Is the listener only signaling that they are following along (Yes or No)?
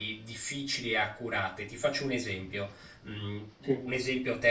Yes